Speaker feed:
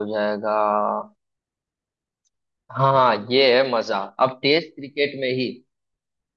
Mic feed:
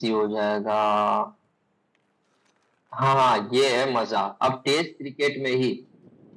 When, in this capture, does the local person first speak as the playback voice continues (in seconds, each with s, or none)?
none